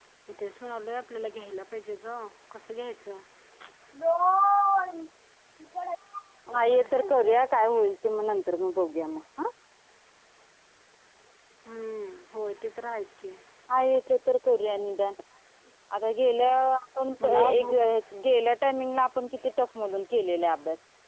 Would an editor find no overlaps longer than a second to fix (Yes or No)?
Yes